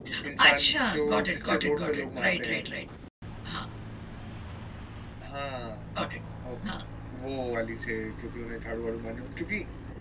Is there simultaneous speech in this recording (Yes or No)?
Yes